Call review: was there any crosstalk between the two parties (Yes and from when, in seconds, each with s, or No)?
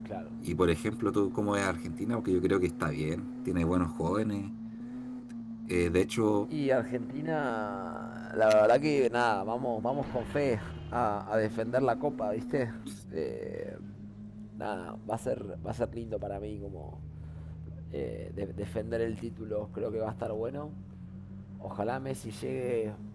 No